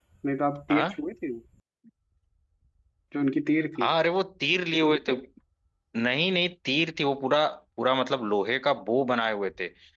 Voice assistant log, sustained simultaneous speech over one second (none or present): none